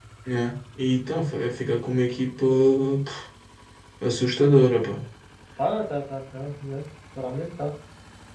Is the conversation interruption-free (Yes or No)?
Yes